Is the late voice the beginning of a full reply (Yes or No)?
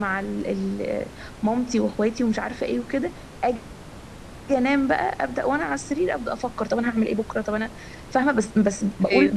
No